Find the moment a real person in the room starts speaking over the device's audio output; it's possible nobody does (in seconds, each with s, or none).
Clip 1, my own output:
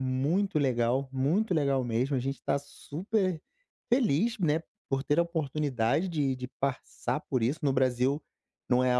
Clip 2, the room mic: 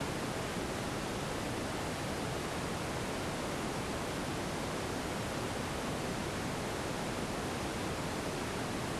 none